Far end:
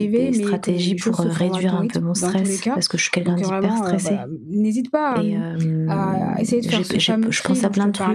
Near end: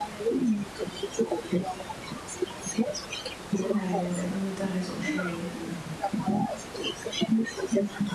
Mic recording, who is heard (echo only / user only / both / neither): both